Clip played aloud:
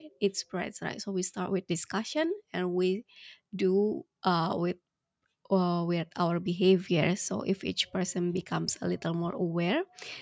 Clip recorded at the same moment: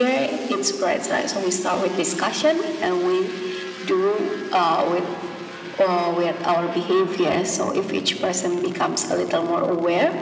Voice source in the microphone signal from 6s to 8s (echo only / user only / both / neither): echo only